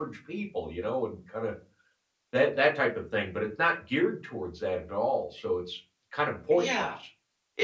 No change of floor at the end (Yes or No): No